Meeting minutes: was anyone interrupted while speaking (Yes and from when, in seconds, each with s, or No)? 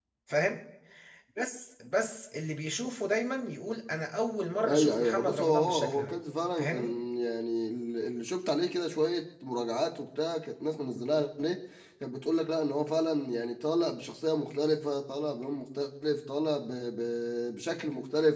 Yes, from 4.6 s